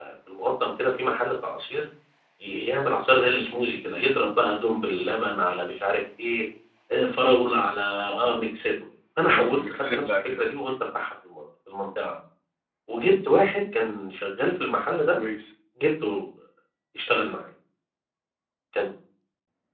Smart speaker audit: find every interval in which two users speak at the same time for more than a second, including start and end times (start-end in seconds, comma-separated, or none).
9.3-10.6